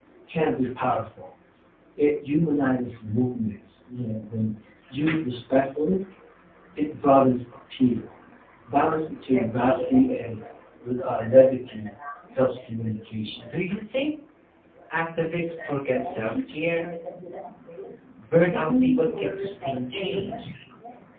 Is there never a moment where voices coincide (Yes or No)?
No